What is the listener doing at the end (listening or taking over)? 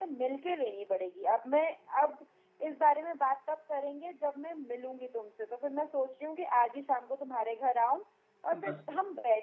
listening